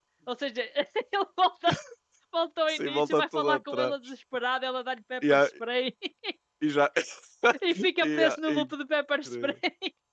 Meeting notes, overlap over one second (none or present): present